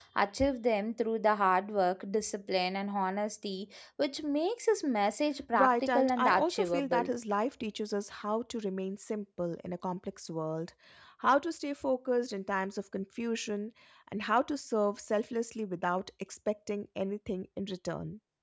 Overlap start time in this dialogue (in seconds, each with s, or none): 5.5 s